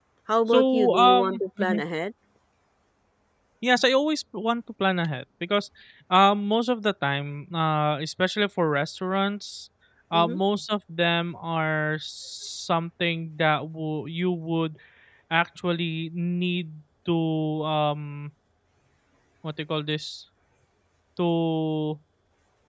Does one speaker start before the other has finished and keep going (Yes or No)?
Yes